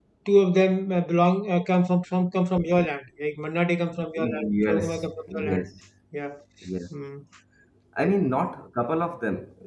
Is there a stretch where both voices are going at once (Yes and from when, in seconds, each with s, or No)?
Yes, from 4.2 s